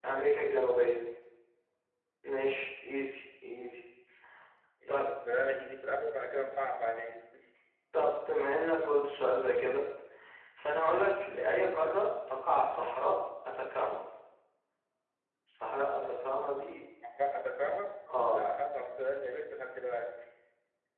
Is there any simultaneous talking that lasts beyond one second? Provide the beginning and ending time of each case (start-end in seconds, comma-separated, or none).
none